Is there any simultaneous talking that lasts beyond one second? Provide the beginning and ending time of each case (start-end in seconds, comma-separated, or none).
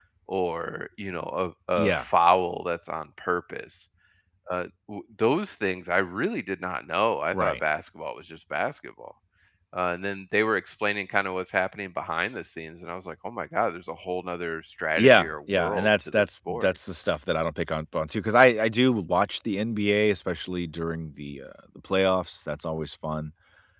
15.0-16.7